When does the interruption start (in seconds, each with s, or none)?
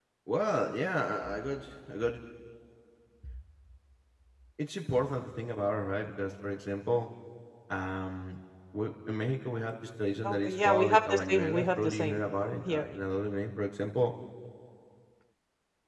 10.2 s